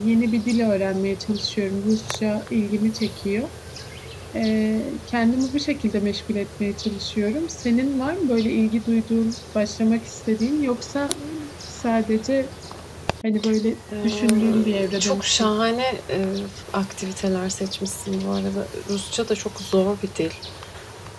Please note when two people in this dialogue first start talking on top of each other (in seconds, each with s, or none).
14.0 s